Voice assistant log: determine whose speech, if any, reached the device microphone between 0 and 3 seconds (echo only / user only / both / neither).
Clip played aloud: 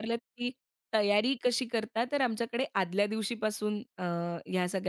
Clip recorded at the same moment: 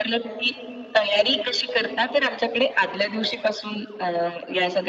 echo only